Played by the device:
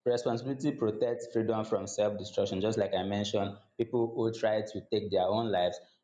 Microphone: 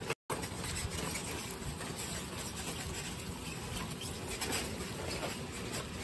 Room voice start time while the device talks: none

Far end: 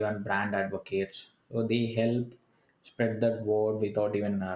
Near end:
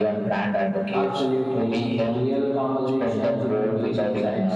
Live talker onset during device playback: 0.9 s

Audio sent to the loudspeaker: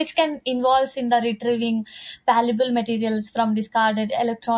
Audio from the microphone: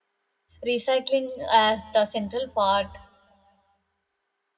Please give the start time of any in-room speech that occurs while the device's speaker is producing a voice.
0.6 s

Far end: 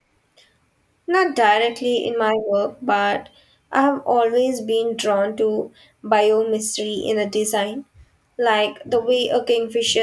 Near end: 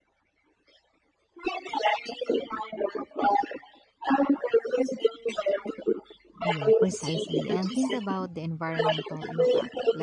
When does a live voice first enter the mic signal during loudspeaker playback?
6.4 s

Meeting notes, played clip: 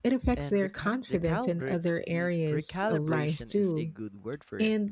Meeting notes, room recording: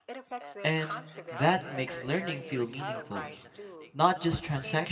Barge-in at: 0.6 s

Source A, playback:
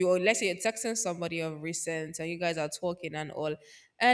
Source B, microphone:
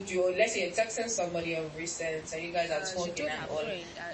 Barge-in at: 2.7 s

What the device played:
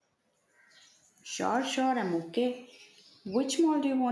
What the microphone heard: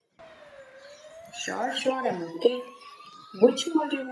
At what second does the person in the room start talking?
none

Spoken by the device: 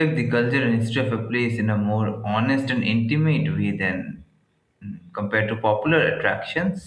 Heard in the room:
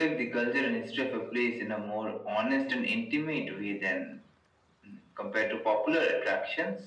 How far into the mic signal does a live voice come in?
none

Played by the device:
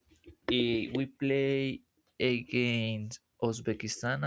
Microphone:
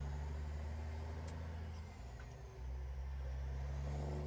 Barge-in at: none

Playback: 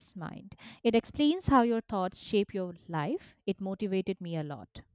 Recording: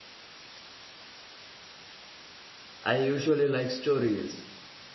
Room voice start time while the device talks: 2.8 s

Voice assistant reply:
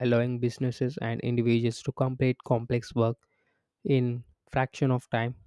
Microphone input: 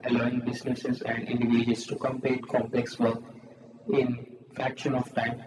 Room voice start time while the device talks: none

